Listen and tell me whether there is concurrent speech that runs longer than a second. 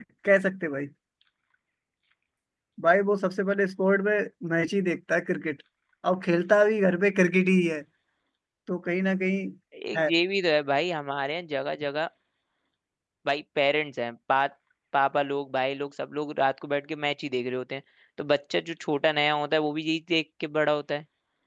No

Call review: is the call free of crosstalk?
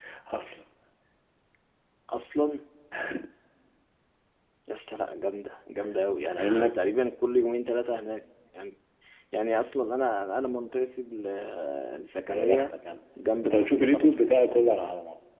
No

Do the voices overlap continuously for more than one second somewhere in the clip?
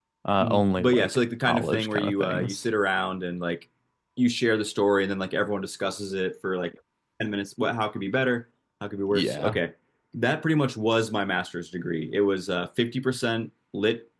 Yes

